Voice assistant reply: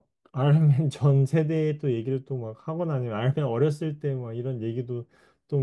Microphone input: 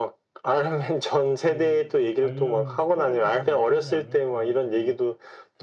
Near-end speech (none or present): present